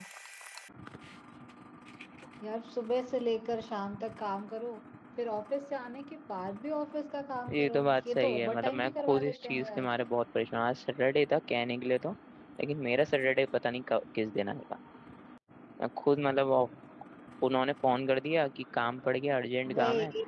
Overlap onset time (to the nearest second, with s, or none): 8 s